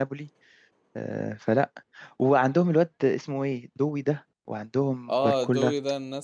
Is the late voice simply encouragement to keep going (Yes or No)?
No